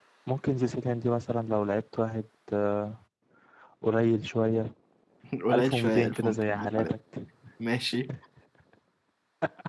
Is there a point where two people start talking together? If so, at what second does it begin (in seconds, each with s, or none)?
5.5 s